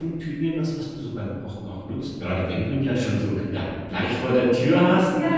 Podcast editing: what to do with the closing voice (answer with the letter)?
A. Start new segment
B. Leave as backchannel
A